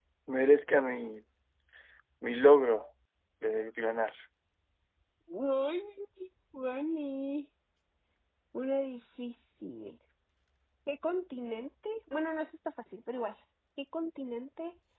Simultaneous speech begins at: none

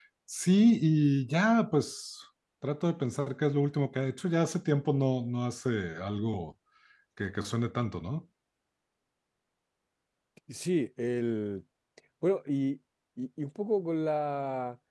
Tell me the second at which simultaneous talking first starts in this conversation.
none

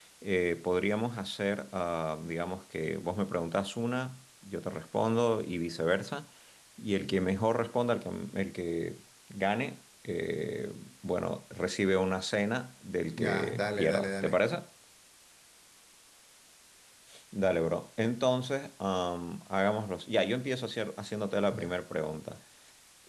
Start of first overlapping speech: 13 s

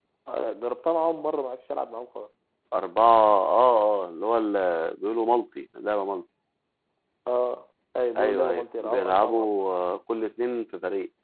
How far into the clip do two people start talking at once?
8 s

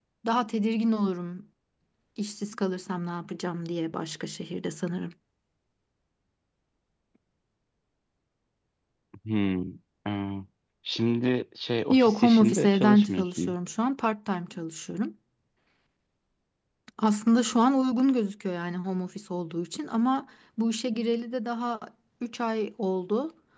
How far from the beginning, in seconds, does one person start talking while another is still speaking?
12 s

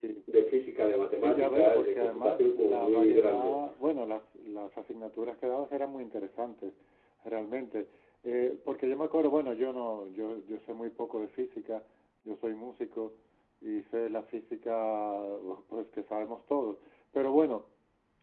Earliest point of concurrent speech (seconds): 1 s

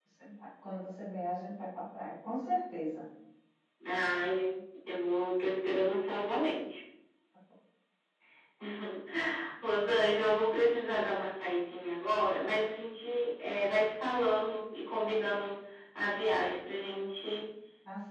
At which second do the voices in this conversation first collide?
none

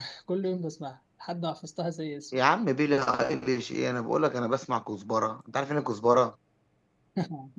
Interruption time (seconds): none

